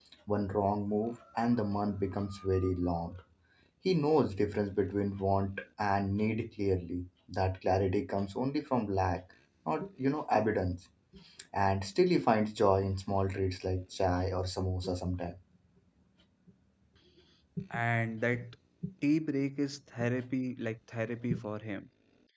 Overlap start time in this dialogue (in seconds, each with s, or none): none